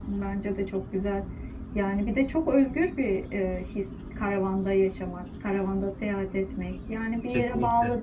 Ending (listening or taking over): listening